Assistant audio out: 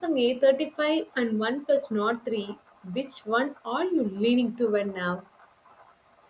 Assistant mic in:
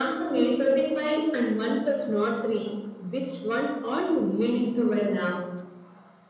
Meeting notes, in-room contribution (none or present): none